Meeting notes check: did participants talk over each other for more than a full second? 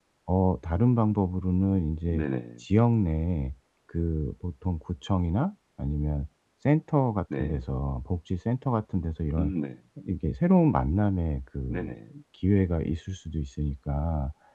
No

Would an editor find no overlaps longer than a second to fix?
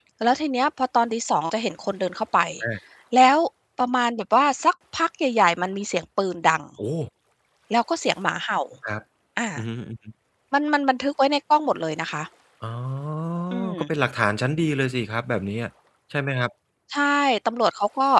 Yes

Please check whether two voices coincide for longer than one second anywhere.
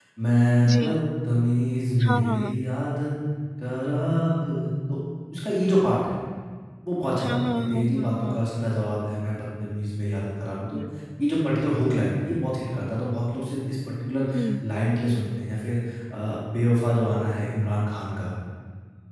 Yes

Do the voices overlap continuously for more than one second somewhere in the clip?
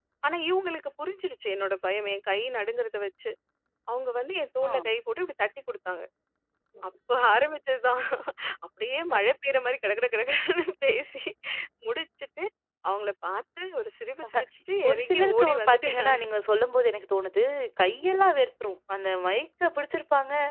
Yes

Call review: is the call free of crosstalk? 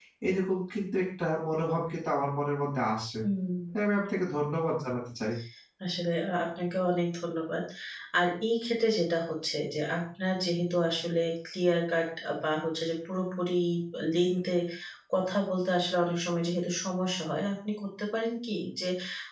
Yes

